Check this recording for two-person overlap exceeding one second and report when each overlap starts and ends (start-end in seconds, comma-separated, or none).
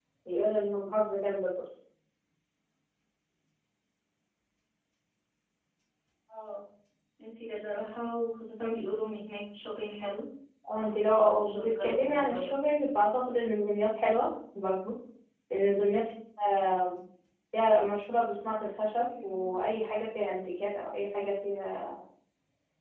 10.7-12.5